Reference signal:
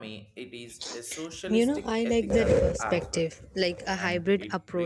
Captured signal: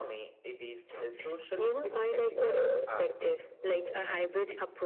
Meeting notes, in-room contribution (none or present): none